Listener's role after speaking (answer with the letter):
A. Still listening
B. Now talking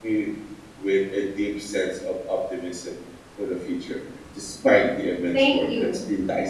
B